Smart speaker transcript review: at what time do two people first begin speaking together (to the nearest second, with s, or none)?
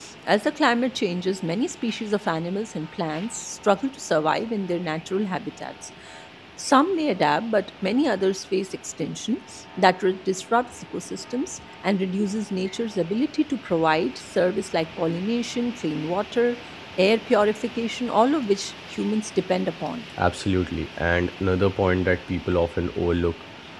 none